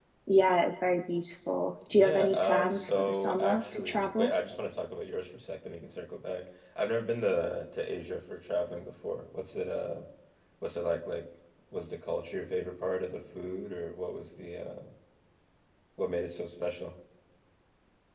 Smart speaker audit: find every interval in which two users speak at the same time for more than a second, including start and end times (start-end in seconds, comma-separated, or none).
1.9-4.3